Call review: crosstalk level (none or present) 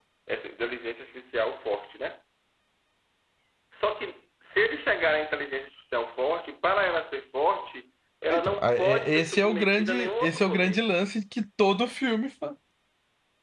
present